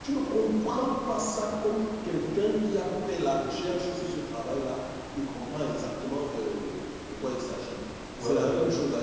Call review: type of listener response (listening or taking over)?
taking over